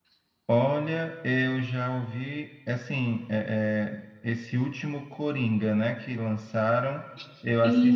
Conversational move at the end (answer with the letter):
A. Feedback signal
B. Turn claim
A